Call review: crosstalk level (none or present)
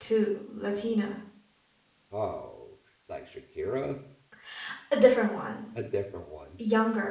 none